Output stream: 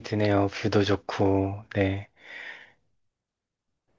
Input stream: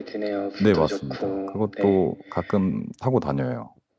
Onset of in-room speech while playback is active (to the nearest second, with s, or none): 1 s